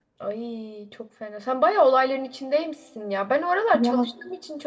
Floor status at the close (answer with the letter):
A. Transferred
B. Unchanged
B